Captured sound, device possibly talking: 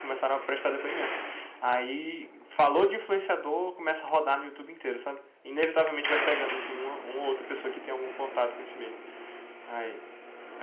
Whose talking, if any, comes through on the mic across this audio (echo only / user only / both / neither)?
user only